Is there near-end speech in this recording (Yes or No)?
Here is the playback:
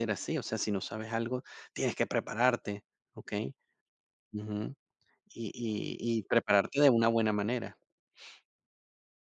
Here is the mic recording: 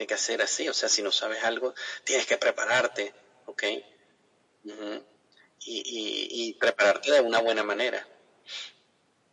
No